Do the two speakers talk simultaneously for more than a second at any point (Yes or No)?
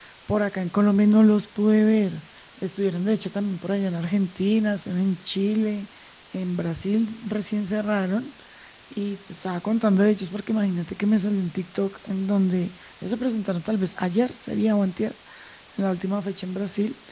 No